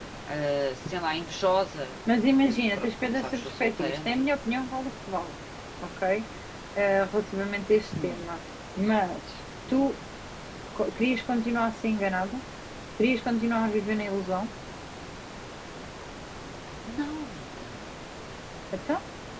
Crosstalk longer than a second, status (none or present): present